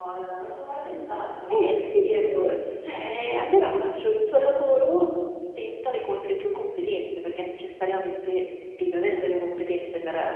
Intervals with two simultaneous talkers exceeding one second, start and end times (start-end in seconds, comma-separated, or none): none